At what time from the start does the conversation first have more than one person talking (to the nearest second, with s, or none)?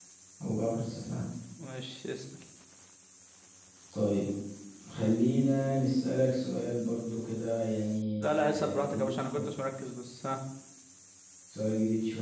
8 s